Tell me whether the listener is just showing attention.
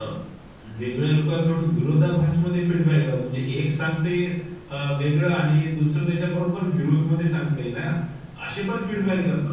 Yes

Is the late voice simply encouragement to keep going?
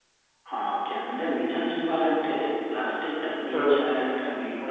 Yes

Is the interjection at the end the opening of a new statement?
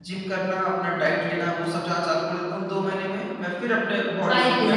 Yes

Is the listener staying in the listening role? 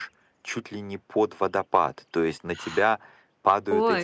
Yes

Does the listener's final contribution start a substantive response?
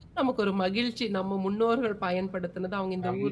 Yes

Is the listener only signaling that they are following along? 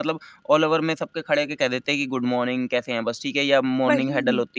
Yes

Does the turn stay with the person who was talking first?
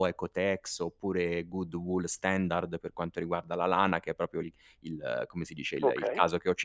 Yes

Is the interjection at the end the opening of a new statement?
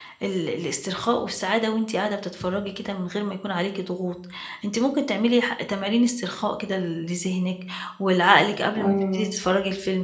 No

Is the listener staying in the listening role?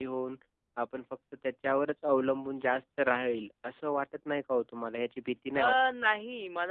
No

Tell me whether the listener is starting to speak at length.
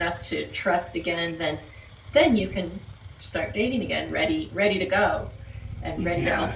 Yes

